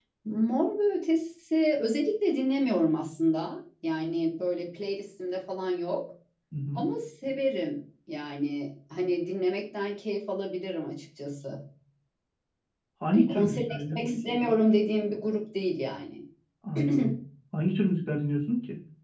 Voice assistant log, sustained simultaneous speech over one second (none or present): present